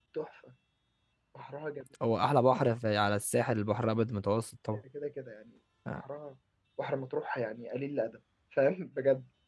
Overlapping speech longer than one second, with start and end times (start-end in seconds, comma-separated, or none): none